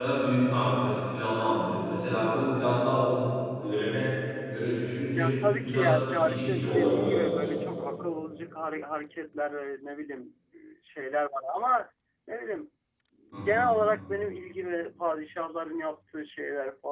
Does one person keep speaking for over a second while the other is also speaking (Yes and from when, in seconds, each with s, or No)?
Yes, from 5.2 s